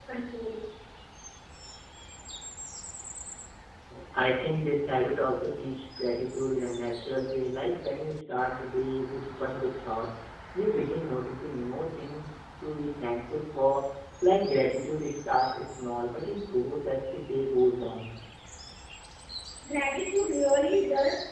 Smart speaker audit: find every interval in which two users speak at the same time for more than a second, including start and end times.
none

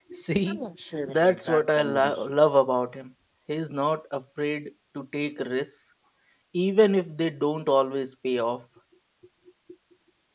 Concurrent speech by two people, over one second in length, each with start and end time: 1.0-2.3

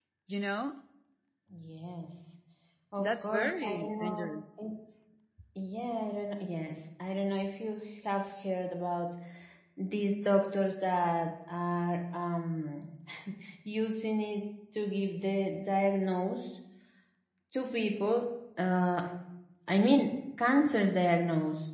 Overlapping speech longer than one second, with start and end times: 3.0-4.3

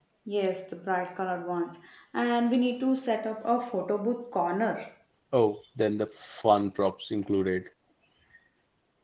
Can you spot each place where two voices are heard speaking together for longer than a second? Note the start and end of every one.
none

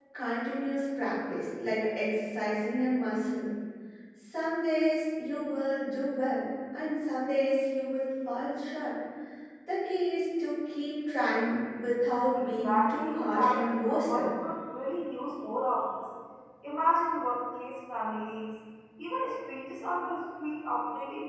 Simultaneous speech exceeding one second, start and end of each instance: 12.6-14.3

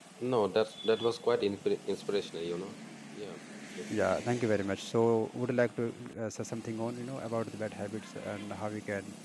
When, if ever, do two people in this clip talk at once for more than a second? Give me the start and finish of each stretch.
none

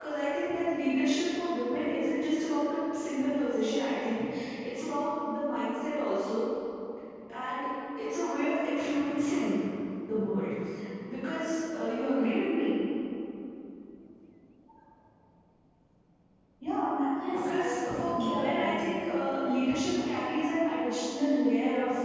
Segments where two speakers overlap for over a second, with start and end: 17.3-19.0

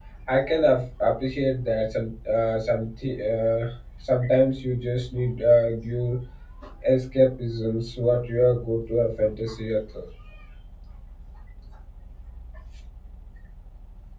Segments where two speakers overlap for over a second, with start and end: none

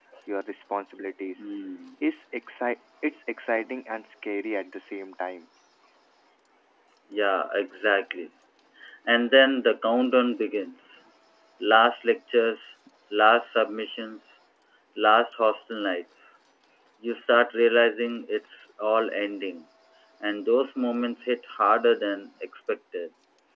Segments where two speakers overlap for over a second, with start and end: none

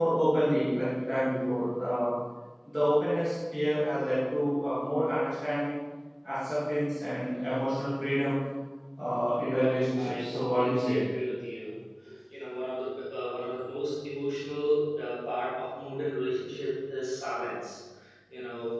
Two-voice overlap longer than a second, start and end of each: 9.5-11.0

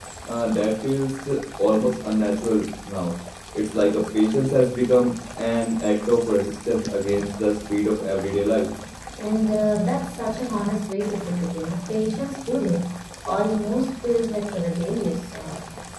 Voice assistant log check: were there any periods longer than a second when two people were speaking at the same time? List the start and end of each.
none

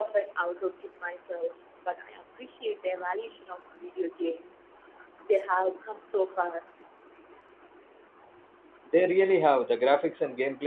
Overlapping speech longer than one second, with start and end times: none

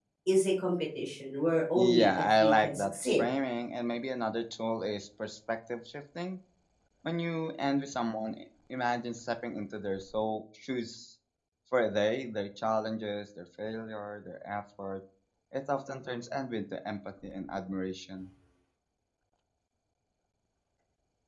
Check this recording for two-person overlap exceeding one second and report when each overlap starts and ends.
1.8-3.2

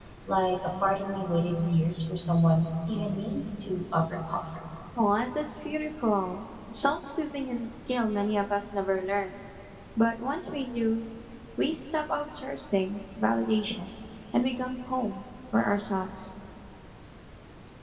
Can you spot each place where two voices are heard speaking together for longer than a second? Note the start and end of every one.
none

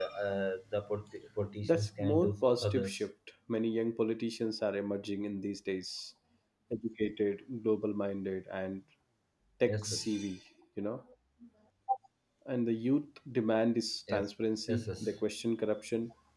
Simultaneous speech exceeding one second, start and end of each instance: 1.6-3.0

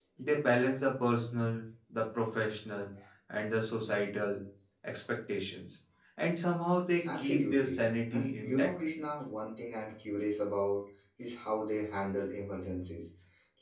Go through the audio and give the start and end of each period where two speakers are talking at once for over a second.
7.2-8.7

